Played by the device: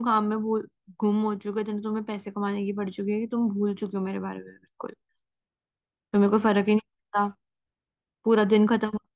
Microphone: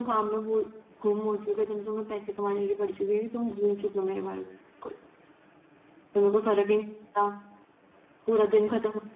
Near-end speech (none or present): none